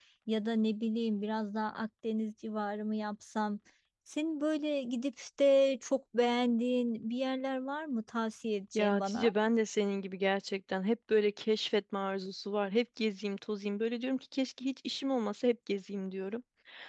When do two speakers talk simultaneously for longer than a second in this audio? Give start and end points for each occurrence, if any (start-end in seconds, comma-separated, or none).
none